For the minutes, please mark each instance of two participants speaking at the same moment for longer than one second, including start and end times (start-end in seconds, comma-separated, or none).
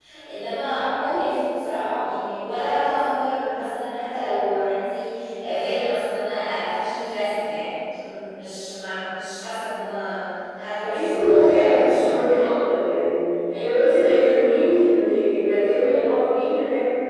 10.8-12.2